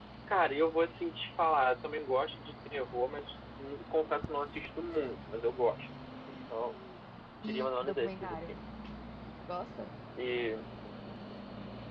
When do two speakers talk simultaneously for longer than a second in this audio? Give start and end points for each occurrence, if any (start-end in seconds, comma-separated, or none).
7.4-8.6